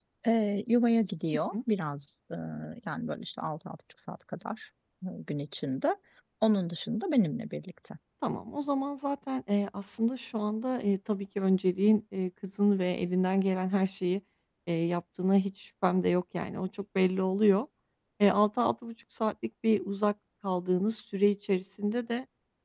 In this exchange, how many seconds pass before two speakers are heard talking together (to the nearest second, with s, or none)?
none